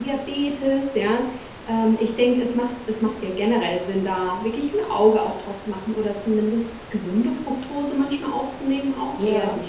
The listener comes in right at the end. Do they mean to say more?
No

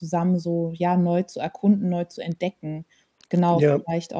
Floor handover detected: No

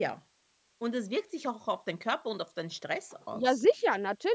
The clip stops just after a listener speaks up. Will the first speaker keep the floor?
No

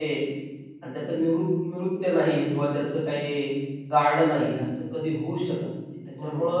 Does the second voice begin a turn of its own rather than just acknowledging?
No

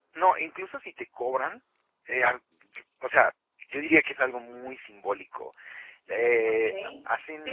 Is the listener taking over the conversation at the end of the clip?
Yes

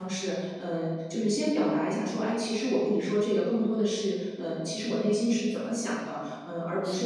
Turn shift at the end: No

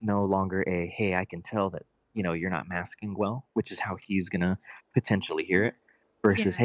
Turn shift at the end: No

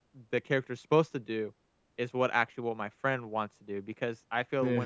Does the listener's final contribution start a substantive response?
No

